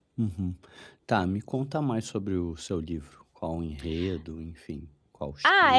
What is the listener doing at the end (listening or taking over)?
taking over